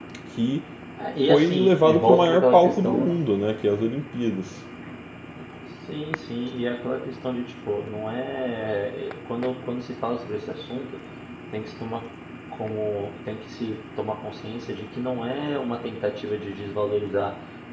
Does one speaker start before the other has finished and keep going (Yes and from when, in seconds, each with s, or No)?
Yes, from 1.3 s